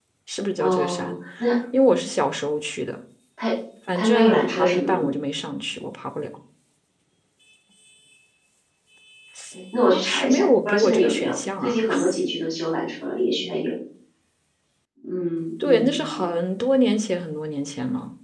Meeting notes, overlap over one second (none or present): present